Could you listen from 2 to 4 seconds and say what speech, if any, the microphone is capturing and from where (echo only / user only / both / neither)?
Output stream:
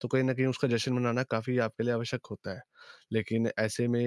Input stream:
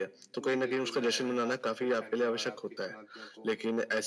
both